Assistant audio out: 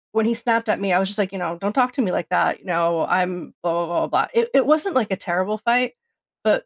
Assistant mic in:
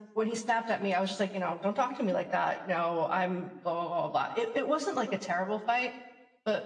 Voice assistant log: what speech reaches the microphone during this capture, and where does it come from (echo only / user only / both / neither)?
echo only